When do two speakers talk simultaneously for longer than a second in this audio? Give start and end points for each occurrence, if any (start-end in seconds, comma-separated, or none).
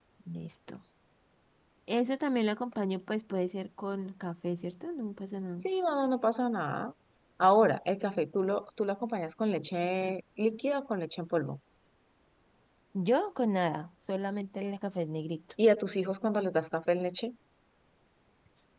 none